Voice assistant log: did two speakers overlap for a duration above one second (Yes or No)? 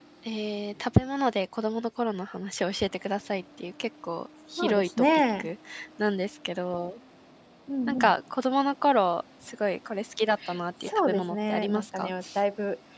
Yes